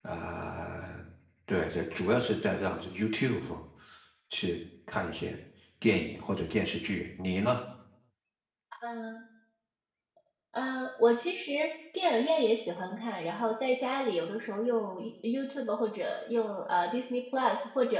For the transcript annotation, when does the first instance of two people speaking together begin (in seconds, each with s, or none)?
none